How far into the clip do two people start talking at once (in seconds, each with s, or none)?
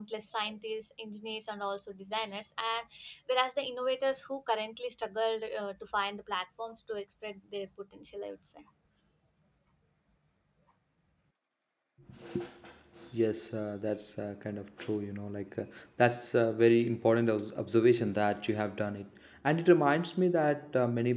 none